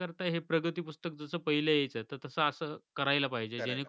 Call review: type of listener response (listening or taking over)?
listening